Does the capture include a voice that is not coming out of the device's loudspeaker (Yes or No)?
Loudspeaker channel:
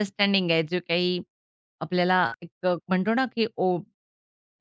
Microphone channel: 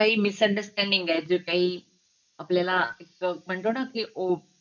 No